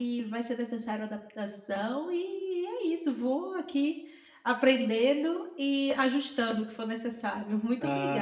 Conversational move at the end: taking over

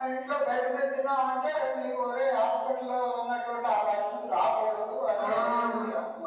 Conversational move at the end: taking over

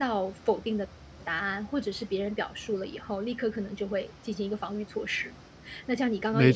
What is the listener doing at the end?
taking over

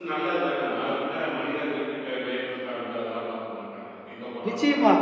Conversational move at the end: taking over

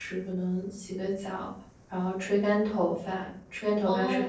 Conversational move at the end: taking over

